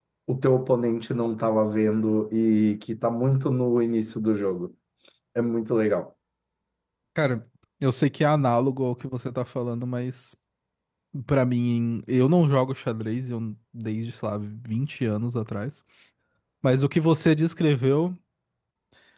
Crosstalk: none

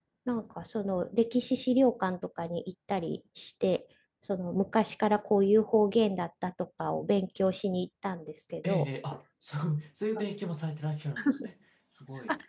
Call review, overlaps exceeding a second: none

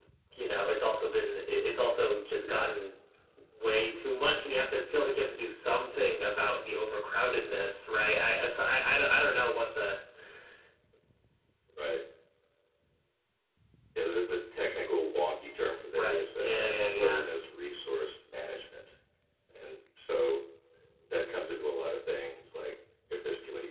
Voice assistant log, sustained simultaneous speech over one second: present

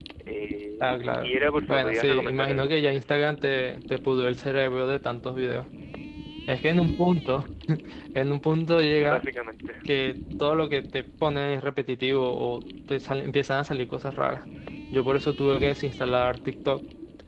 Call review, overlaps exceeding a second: present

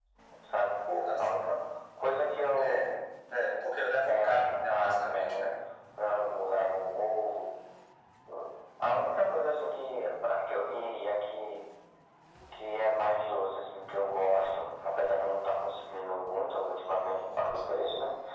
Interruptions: present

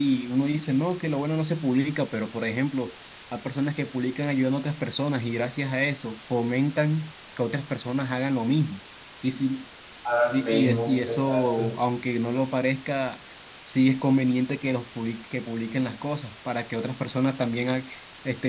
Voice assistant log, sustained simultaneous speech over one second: present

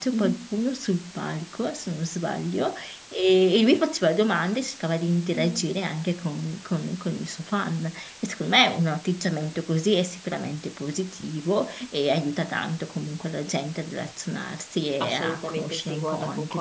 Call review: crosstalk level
present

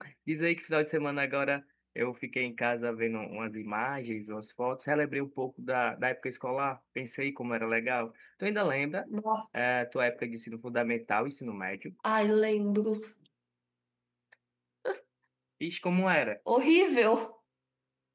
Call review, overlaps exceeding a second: none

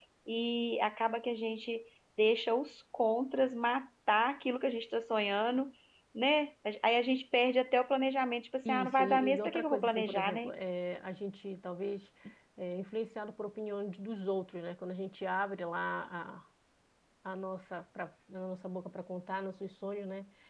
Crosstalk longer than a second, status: present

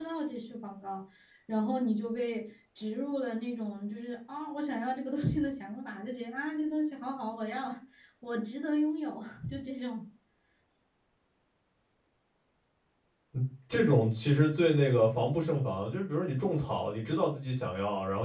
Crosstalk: none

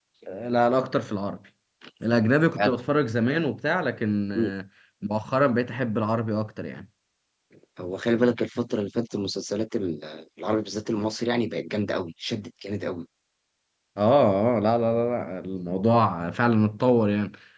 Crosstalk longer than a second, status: none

